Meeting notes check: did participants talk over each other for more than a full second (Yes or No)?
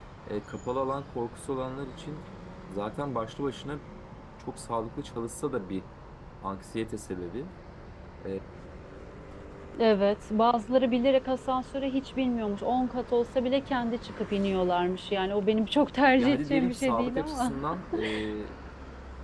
Yes